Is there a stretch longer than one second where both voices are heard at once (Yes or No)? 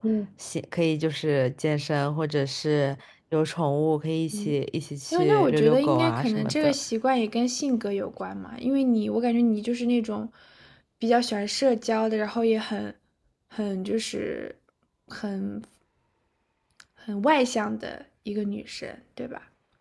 Yes